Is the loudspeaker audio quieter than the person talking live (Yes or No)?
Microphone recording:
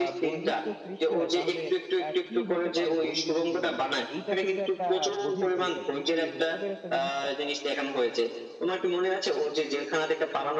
No